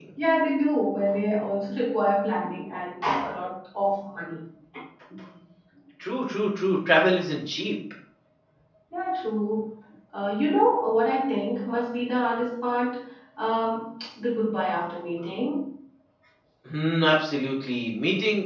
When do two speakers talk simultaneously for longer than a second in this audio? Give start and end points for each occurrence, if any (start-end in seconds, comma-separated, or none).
none